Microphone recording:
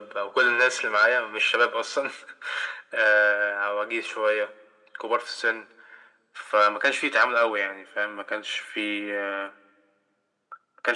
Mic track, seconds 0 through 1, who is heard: echo only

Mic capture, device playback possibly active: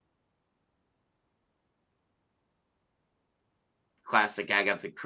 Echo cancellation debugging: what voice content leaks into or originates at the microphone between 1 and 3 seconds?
neither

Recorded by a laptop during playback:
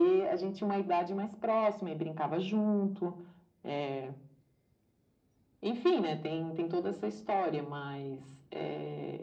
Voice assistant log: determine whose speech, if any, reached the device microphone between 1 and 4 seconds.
echo only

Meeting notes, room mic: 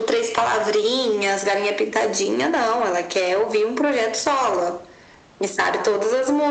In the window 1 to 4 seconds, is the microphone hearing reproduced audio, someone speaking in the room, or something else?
echo only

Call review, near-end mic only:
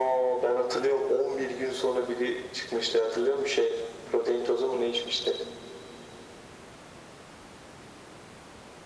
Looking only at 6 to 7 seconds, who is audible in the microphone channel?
neither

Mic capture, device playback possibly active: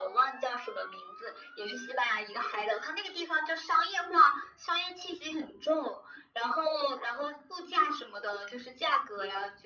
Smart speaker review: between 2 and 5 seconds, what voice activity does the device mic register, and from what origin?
echo only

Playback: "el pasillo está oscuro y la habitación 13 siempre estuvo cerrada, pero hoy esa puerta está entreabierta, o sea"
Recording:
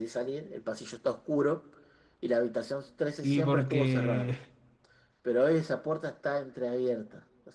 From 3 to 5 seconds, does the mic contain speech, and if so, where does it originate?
both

